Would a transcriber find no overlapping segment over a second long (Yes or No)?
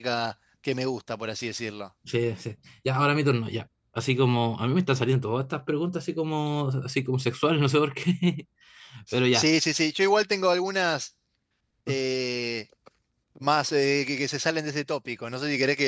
Yes